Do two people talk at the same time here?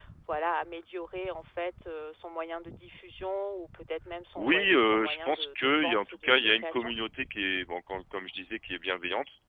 Yes, from 4.4 s

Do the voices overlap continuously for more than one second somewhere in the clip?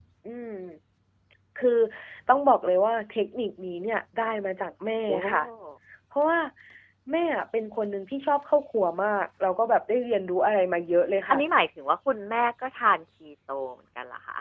No

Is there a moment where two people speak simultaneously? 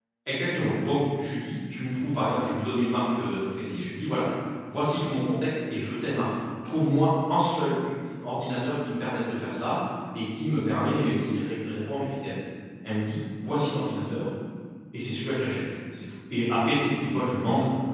No

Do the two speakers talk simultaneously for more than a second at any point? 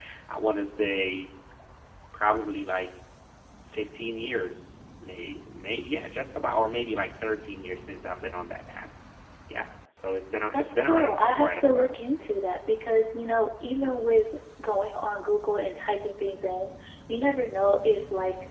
Yes, from 10.5 s

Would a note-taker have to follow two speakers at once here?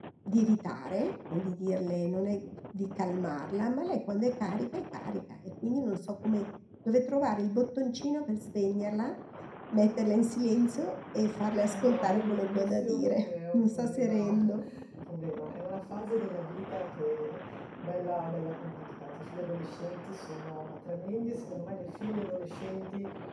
Yes, from 11.7 s

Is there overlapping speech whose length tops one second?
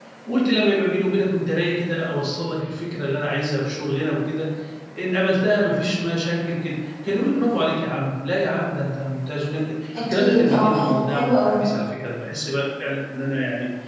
Yes, from 9.9 s

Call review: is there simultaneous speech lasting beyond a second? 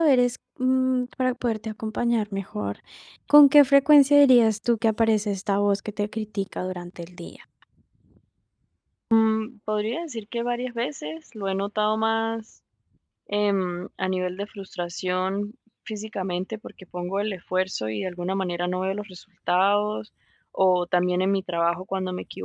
No

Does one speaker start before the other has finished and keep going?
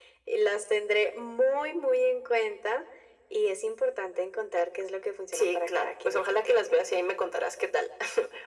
Yes, from 5.3 s

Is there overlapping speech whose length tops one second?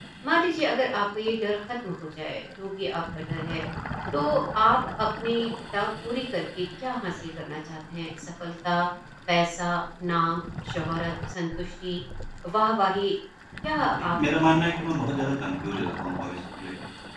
Yes, from 13.8 s

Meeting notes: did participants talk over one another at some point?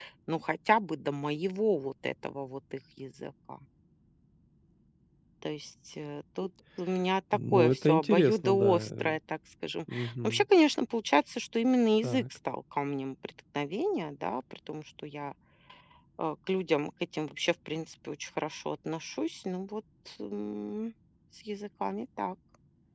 Yes, from 7.5 s

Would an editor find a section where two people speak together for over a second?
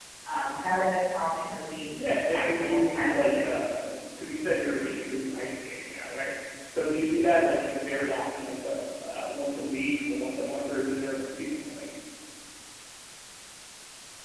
Yes, from 2.0 s

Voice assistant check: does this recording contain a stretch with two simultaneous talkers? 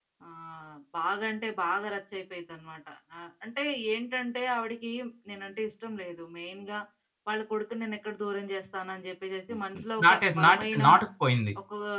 Yes, from 9.5 s

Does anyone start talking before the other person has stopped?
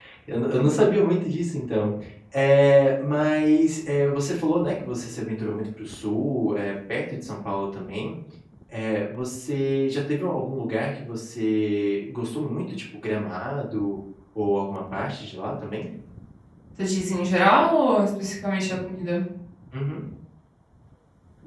No

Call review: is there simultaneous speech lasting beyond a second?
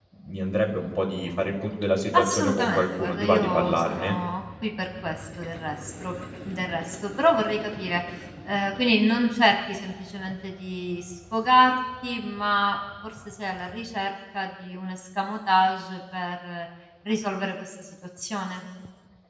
Yes, from 2.1 s

